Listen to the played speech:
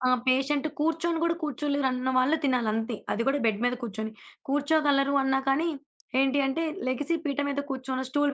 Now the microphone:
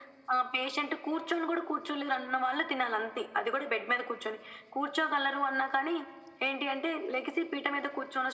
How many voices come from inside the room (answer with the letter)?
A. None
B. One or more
A